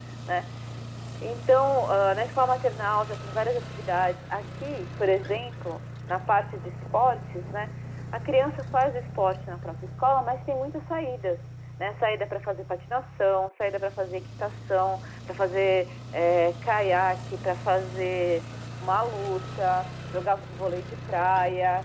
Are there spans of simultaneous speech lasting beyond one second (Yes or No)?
No